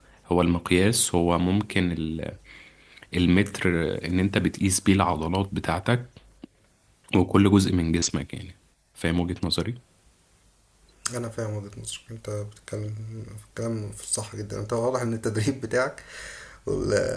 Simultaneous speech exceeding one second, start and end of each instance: none

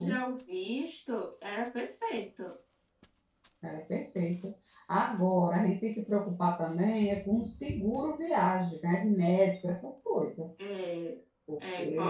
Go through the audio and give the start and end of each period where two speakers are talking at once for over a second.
none

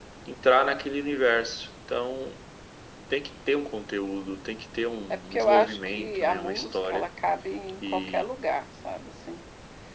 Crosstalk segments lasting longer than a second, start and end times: 5.1-7.1

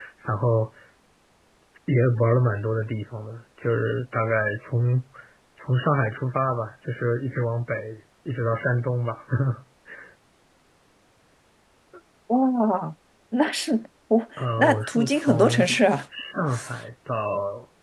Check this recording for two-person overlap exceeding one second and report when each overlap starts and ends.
14.4-15.7

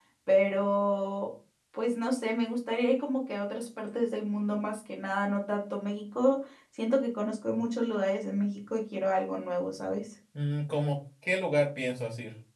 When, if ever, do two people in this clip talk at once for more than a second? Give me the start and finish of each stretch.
none

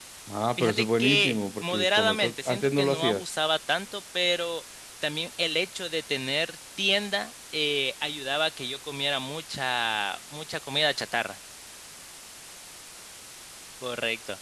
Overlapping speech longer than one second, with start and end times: 0.6-3.2

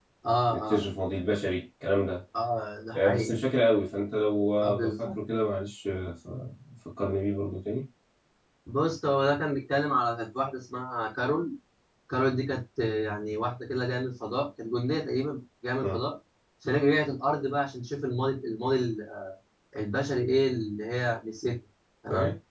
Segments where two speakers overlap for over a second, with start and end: none

